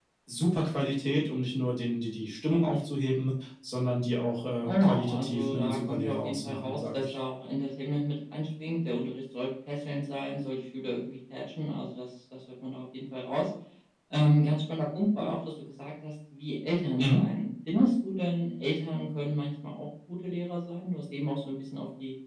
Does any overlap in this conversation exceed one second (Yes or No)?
Yes